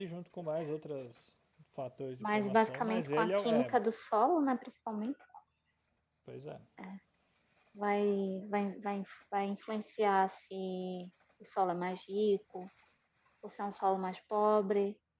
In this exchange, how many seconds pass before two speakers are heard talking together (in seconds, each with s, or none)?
2.2 s